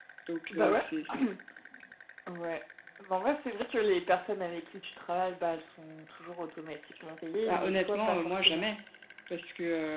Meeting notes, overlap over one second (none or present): present